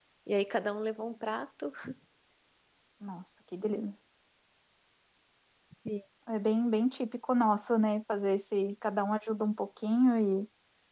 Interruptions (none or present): none